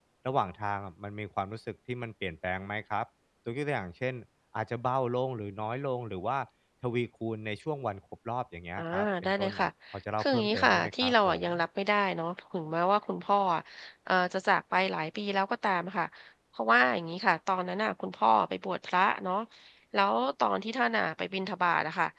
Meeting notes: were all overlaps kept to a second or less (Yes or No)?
No